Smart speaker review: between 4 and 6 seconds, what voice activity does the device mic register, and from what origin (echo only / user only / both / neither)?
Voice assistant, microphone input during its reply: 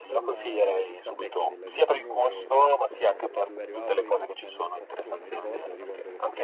both